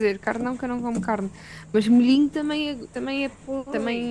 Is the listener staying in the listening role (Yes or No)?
No